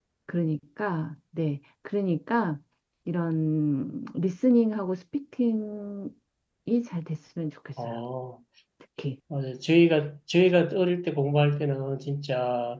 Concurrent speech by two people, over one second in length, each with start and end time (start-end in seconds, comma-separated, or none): none